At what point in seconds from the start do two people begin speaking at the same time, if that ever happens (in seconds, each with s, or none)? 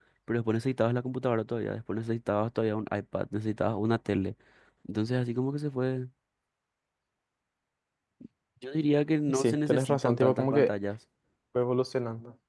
9.3 s